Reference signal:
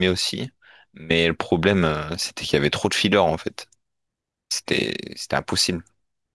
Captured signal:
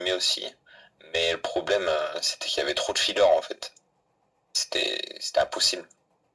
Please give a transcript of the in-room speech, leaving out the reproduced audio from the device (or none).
none